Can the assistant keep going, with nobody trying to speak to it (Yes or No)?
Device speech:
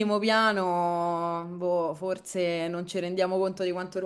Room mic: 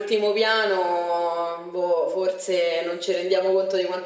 Yes